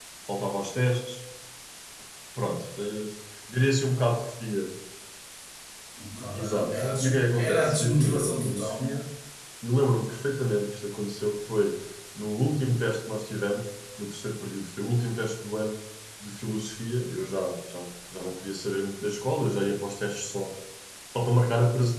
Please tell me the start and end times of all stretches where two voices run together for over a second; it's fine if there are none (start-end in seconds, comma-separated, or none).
6.3-9.0